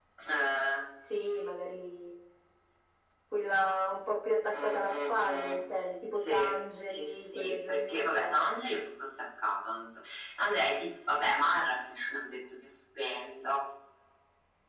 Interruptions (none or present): present